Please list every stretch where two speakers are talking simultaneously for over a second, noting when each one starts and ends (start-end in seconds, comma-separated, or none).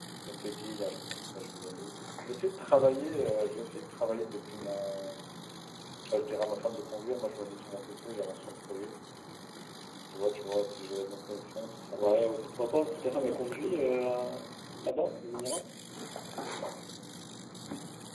11.9-14.0